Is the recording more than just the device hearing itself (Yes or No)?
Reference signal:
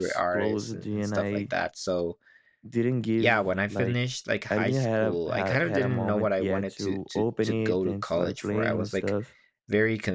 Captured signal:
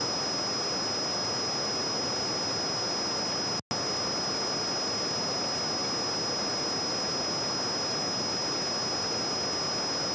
No